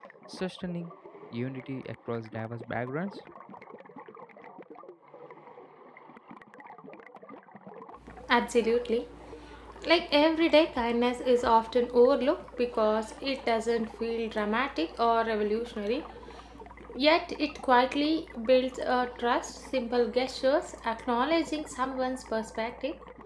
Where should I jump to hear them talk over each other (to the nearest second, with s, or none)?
none